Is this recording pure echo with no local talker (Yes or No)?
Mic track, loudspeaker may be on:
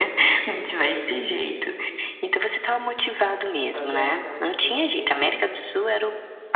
No